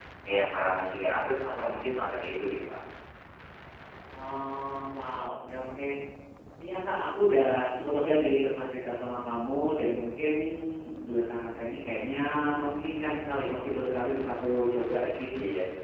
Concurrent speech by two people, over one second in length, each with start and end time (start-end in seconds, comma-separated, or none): none